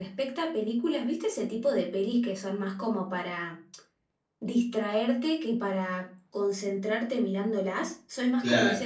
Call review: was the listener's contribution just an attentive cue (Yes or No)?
Yes